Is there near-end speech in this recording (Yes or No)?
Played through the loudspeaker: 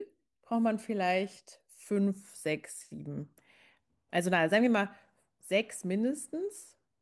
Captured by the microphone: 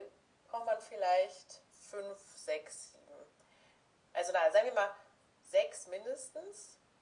No